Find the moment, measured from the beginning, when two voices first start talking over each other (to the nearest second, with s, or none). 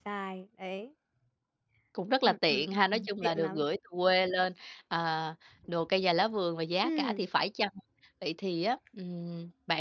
2 s